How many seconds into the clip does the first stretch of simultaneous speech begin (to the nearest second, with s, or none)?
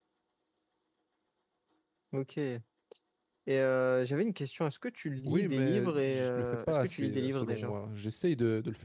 5 s